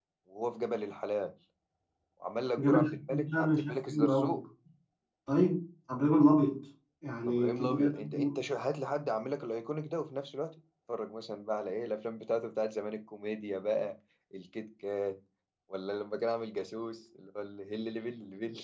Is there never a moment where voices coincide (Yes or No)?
No